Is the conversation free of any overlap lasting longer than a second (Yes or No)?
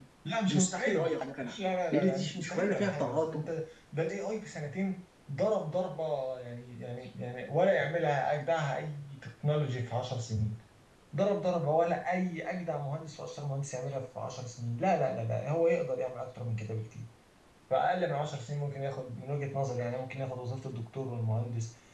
No